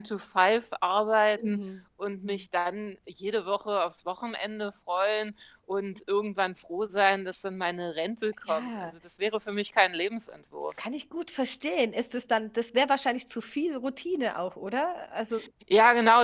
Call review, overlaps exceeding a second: none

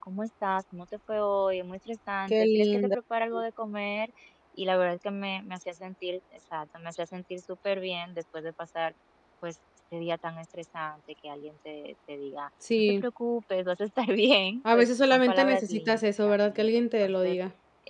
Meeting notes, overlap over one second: present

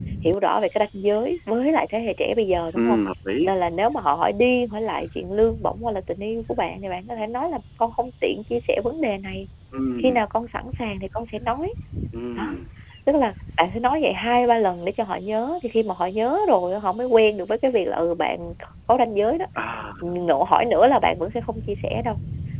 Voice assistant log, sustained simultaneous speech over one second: none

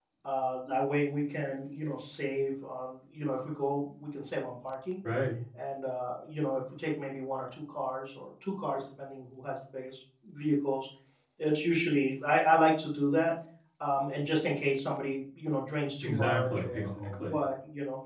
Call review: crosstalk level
present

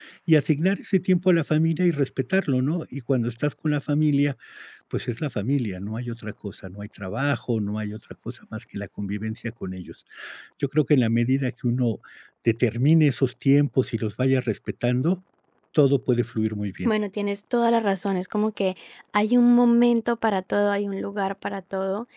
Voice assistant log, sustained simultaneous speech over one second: none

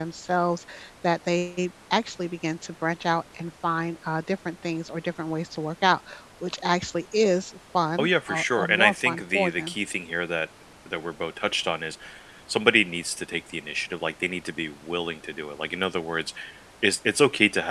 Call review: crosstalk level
present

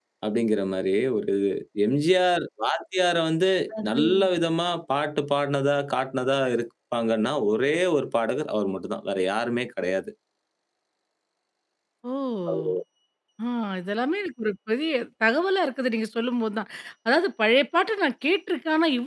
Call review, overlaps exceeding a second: none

